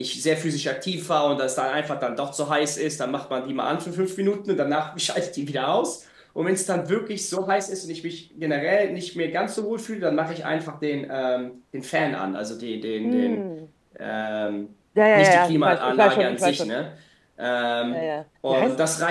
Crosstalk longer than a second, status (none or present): present